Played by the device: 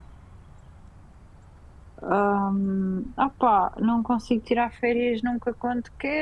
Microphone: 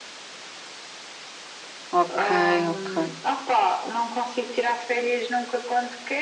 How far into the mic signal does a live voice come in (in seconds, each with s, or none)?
2.0 s